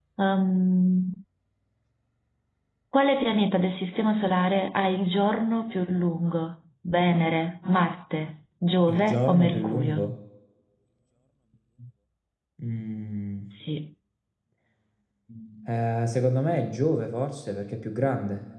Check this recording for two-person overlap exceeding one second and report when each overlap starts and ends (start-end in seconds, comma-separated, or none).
8.9-10.1